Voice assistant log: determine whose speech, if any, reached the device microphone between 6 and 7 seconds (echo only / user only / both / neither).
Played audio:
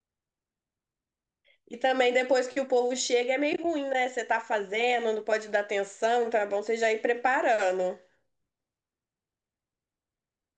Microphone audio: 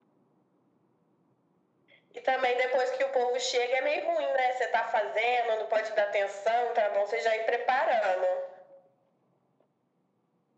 echo only